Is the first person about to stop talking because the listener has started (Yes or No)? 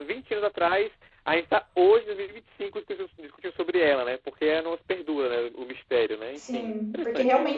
Yes